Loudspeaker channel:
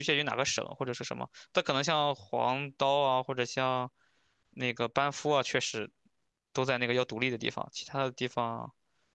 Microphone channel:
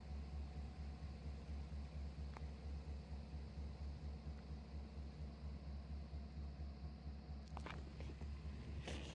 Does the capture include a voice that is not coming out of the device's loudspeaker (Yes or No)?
No